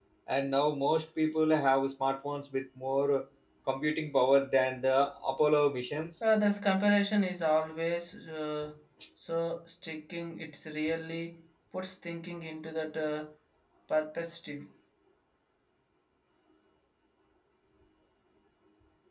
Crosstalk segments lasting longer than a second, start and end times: none

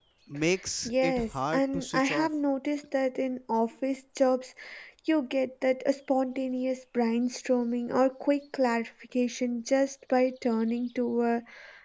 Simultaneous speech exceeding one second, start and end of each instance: 0.8-2.3

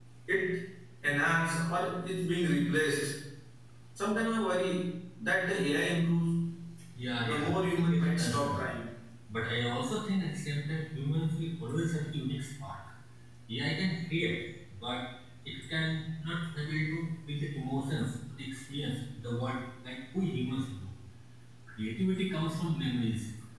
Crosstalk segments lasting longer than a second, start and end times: 7.2-8.6

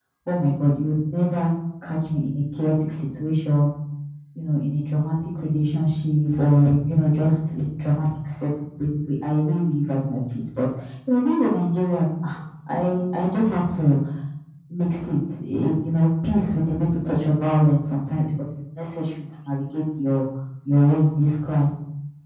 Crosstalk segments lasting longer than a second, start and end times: none

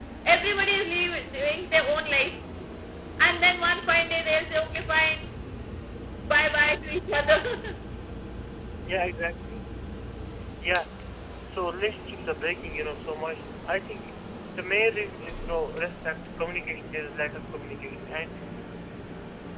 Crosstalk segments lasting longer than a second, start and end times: none

